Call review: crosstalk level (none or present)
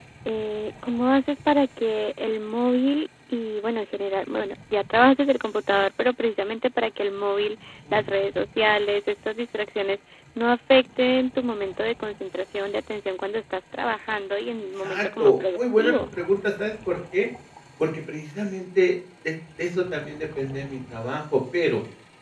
present